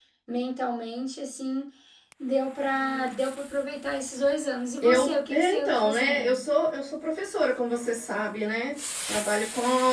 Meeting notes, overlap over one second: present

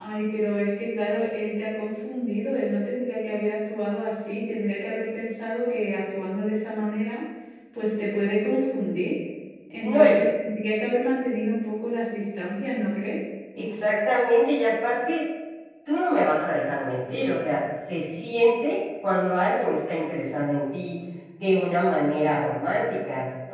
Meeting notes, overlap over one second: none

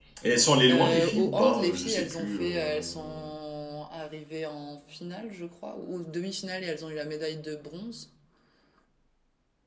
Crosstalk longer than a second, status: present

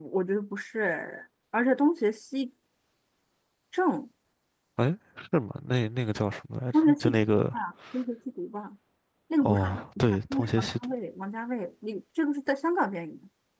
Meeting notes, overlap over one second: present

